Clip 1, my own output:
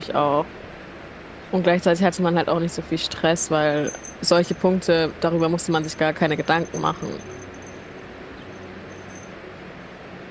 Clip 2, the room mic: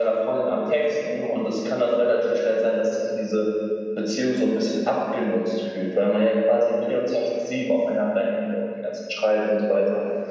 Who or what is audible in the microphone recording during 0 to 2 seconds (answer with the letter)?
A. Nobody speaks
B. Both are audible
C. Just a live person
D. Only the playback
C